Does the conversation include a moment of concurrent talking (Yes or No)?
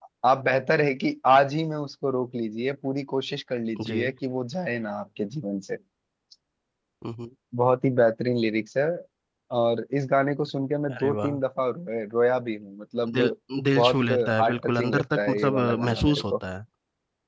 Yes